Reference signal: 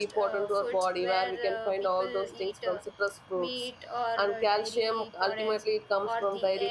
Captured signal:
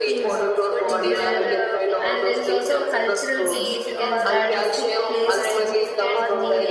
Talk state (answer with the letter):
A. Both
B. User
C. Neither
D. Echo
A